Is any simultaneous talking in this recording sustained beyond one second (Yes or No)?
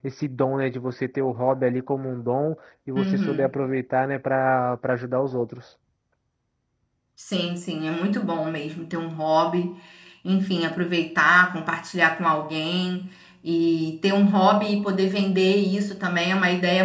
No